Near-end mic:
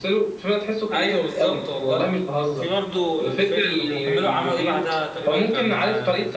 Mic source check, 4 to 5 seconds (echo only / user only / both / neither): both